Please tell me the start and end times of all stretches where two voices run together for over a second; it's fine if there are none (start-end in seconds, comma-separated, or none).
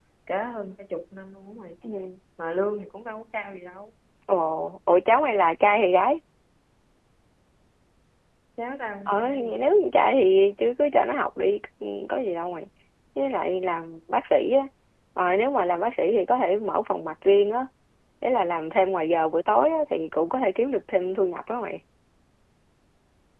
none